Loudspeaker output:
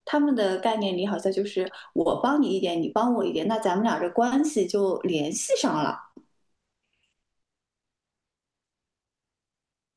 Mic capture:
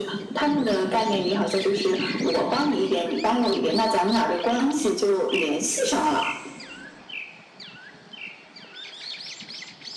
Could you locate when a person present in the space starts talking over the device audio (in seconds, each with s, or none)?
none